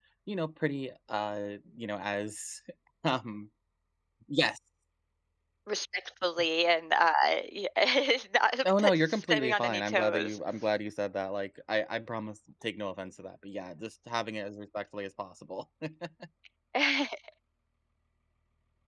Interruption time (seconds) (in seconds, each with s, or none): 8.6 s